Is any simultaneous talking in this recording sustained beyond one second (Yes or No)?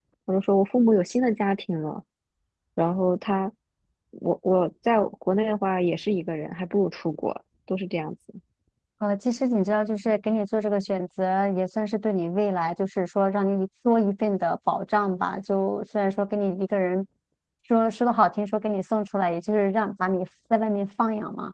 No